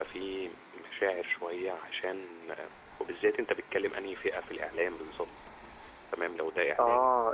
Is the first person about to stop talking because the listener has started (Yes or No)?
Yes